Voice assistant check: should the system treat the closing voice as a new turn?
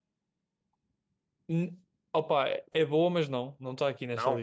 No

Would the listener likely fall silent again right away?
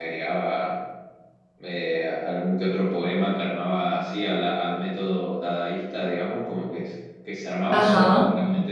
Yes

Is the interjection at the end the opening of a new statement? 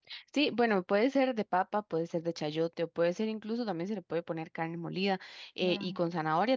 No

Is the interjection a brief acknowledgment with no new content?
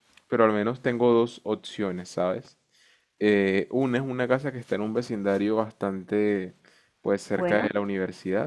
Yes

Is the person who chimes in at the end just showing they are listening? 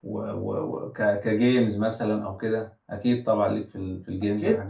No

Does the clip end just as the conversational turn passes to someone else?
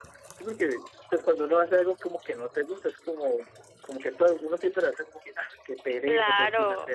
Yes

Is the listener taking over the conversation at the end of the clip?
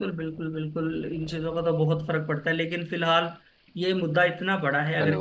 No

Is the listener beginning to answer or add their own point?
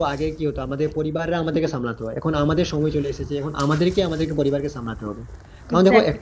No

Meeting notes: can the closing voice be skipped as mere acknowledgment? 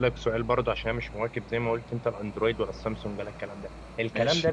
Yes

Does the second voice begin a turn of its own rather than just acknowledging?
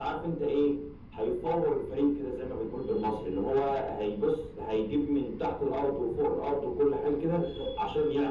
No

